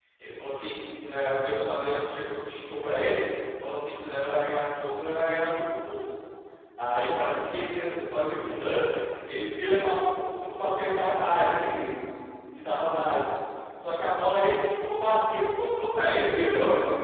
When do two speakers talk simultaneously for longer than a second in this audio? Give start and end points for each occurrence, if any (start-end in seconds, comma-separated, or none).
none